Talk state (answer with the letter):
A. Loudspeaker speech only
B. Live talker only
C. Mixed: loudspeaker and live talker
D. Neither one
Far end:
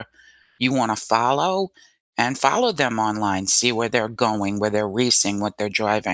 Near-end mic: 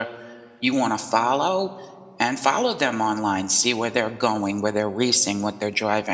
A